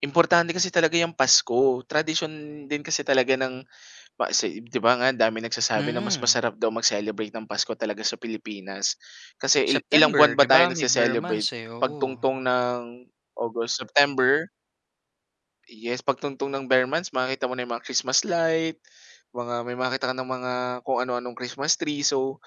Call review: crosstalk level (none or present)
present